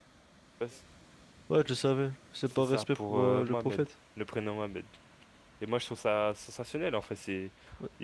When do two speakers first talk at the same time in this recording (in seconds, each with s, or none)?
2.6 s